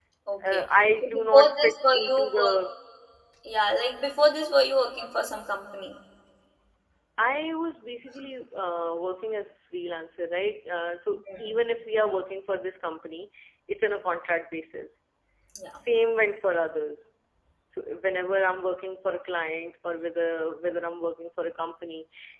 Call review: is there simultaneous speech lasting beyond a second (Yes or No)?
Yes